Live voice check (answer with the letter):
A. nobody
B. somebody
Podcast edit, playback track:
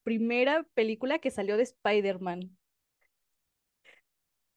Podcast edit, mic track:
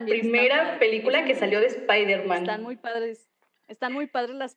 B